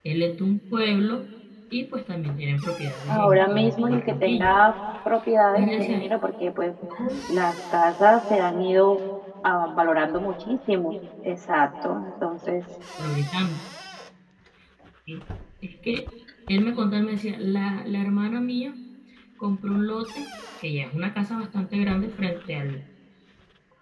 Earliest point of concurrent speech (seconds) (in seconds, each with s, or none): 3.1 s